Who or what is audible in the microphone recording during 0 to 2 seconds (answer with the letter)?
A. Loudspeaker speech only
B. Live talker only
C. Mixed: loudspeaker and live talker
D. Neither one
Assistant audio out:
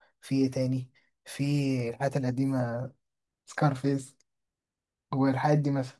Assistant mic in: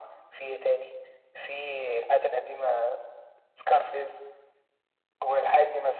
A